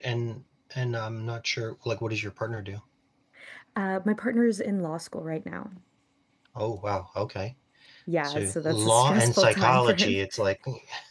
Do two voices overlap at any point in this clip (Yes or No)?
Yes